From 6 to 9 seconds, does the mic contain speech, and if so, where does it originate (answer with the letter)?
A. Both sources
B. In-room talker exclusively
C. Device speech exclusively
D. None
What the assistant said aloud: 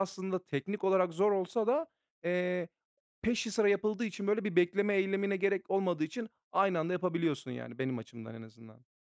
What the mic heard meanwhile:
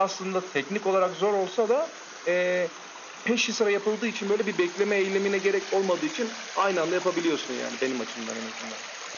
C